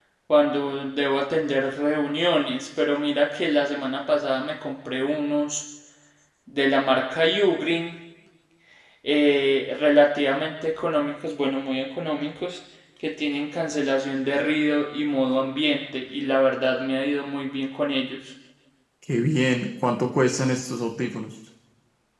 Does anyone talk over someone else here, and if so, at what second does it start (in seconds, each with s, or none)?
none